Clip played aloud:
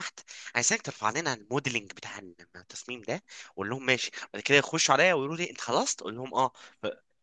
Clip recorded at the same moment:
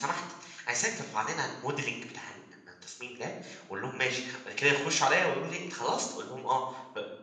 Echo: present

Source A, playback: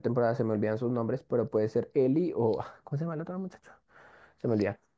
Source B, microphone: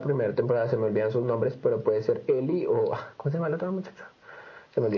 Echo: present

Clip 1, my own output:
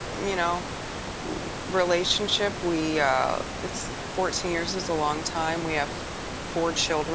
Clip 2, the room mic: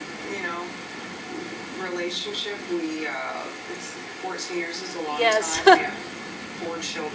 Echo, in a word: present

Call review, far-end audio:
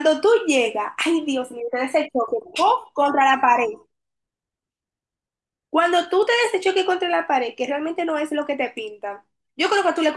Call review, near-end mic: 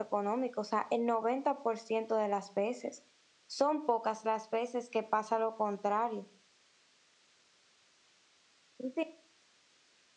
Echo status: none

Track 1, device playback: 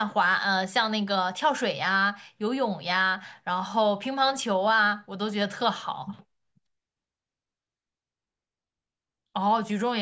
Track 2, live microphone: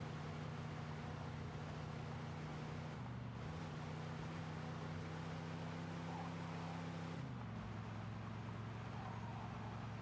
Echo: none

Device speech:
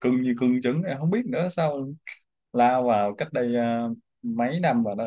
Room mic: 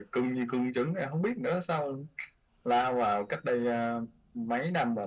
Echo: present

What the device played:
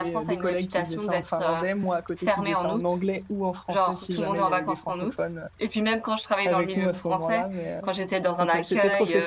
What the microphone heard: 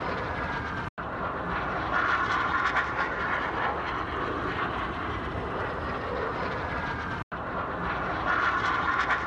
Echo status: none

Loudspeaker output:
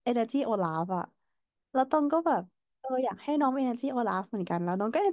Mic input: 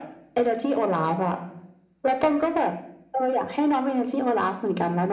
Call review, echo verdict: present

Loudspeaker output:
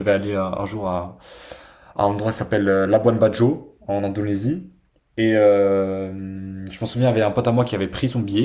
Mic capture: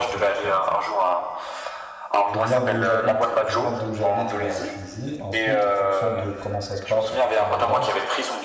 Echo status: present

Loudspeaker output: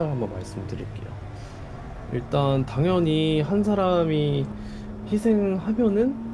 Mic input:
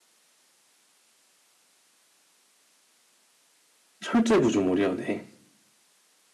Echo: none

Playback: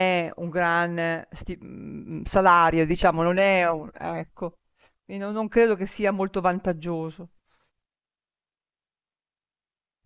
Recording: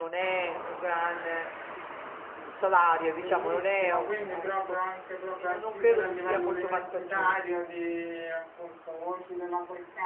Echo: present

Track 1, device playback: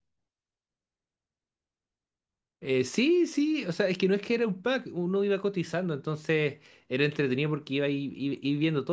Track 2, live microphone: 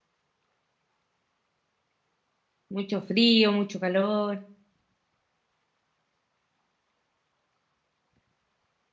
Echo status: none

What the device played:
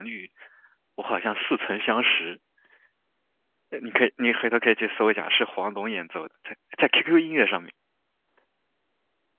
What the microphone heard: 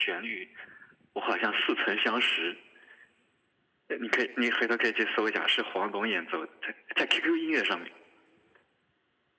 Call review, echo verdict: present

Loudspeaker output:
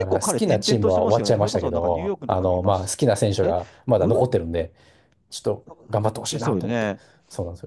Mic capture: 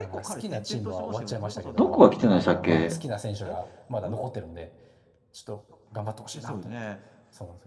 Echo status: present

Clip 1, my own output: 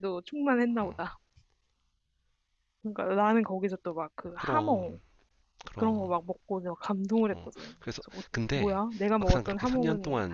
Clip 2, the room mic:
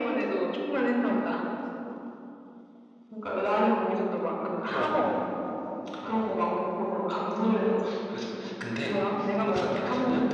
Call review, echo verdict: present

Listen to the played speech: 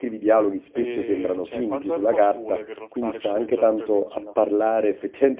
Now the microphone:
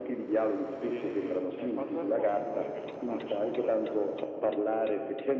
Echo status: present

